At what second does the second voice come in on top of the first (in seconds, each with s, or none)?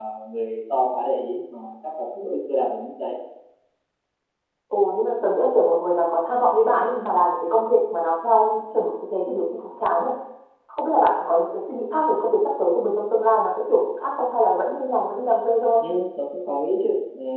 none